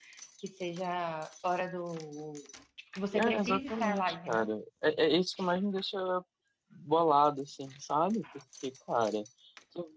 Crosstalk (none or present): present